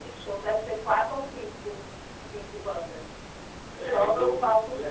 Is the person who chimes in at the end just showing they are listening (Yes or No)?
No